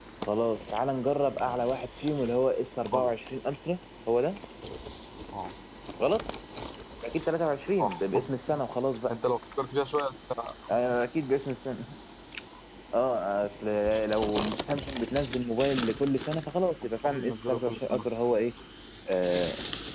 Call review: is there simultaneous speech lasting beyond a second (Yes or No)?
Yes